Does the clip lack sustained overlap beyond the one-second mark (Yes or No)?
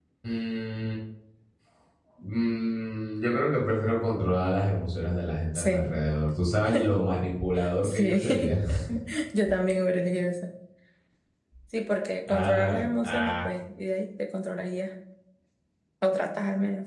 No